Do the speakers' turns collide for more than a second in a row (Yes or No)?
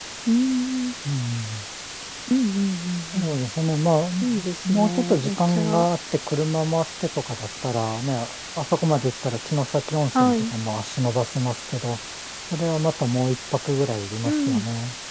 Yes